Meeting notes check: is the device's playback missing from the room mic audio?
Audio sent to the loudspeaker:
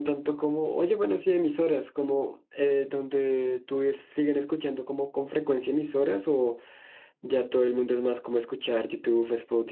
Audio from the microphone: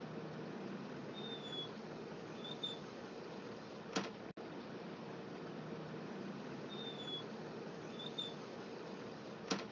Yes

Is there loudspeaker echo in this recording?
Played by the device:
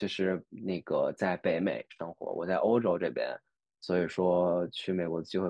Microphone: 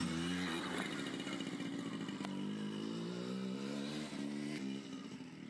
No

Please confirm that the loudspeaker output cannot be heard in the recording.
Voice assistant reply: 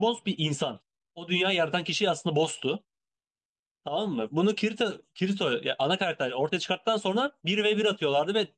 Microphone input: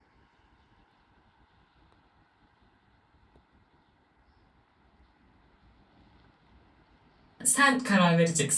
Yes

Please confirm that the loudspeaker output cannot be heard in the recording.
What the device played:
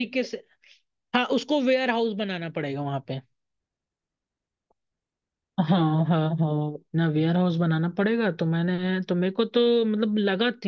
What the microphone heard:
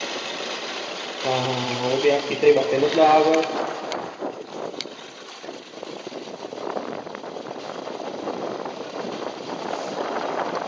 Yes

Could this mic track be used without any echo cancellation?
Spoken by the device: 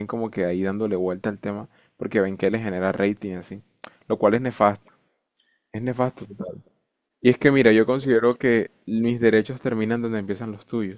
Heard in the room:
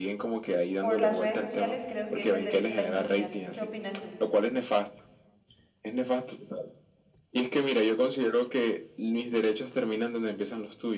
No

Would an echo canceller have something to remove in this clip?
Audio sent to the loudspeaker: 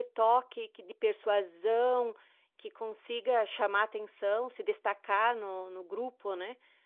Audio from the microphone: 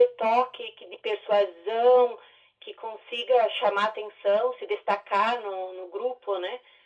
Yes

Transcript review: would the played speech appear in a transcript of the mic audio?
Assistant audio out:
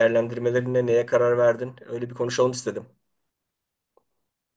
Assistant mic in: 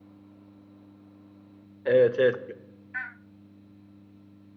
No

